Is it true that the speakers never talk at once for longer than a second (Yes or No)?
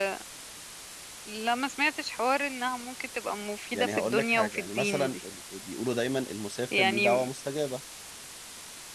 No